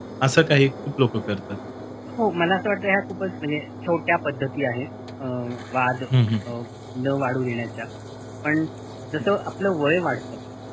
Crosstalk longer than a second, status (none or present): none